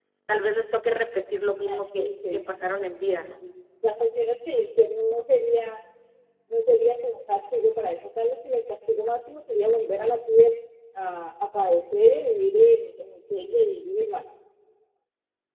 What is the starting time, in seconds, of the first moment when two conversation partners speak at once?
1.6 s

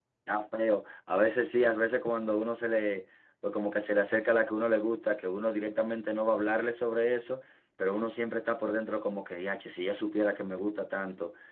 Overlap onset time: none

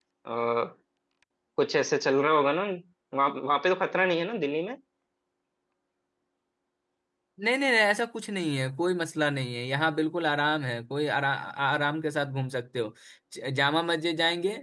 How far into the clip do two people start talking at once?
none

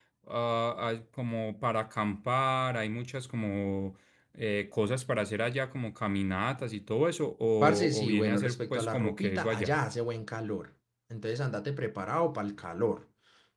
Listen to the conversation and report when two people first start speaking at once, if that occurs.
7.6 s

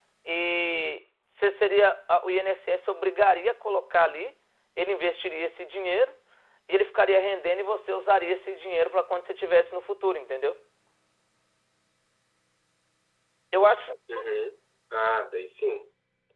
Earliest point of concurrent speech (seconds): none

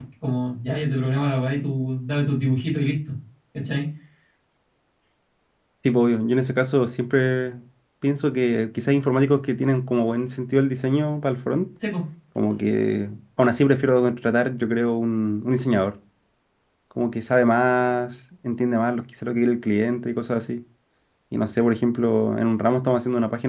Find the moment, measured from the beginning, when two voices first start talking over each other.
none

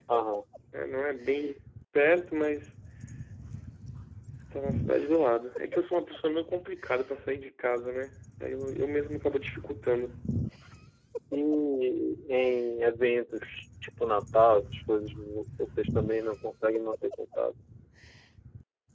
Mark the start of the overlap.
none

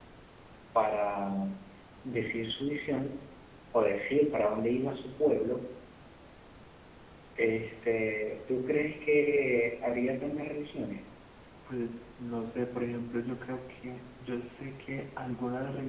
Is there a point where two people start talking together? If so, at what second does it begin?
none

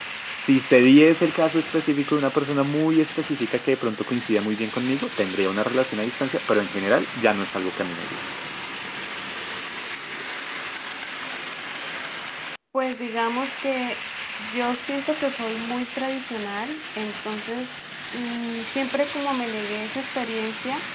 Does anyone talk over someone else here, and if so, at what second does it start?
none

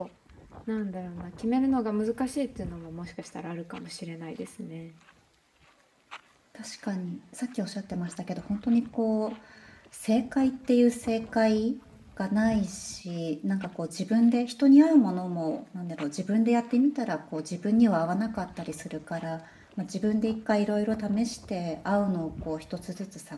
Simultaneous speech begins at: none

